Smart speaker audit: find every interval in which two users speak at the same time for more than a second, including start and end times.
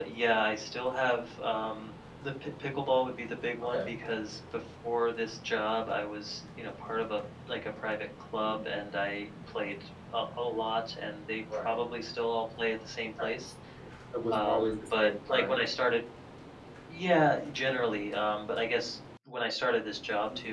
14.3-15.6

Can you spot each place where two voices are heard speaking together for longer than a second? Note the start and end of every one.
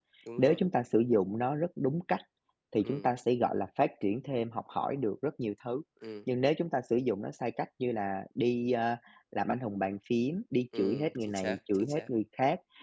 10.8-12.0

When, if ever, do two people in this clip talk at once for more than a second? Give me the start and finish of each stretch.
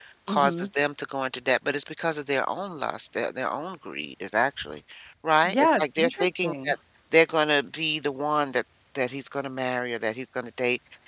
5.4-6.7

